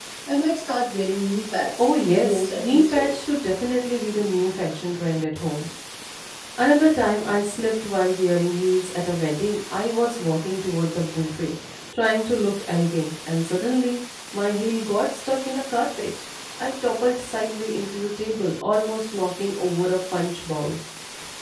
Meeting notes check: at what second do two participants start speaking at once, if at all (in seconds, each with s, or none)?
1.8 s